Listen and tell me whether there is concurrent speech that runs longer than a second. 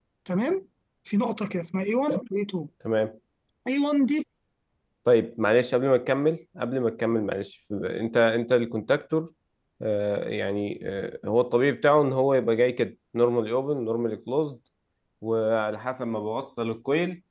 No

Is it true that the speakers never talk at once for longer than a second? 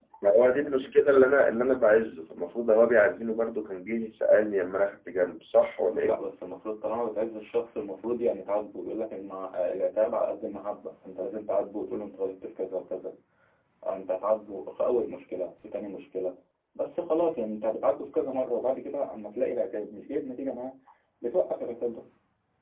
Yes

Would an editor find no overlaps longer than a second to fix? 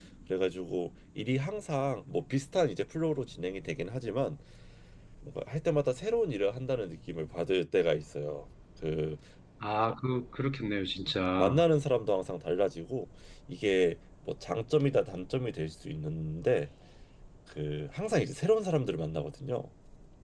Yes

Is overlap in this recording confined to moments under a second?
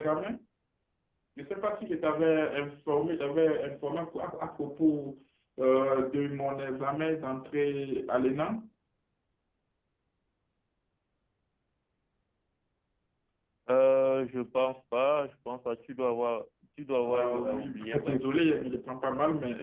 No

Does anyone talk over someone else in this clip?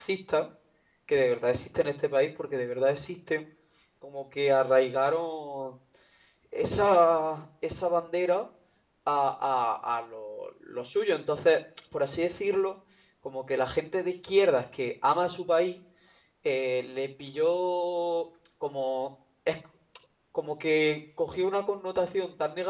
No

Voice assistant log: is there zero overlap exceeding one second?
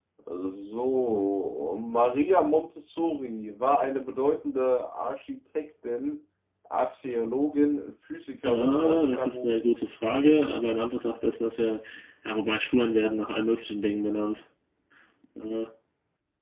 No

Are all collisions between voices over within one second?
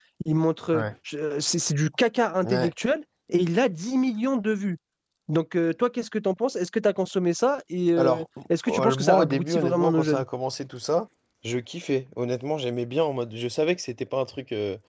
No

